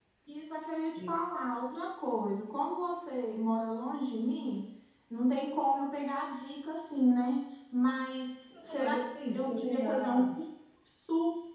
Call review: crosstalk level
present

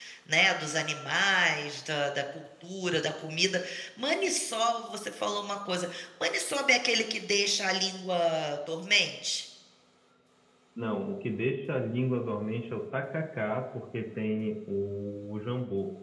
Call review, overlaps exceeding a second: none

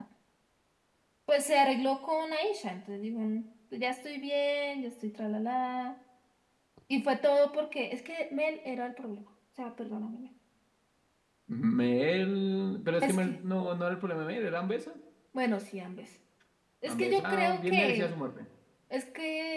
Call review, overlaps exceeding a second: present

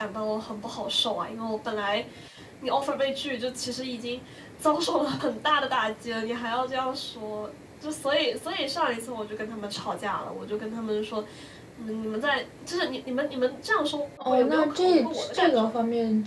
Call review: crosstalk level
present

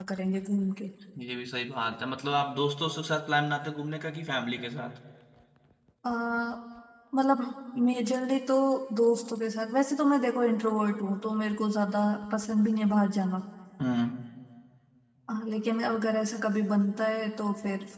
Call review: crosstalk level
none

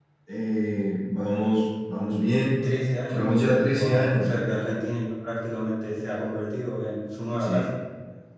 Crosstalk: present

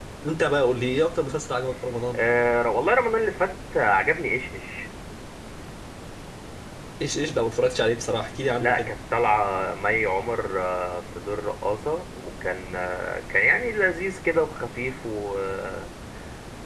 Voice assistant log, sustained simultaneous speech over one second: none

